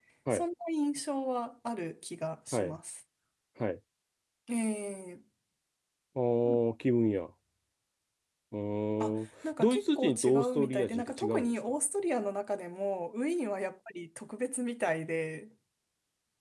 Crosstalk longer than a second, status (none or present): present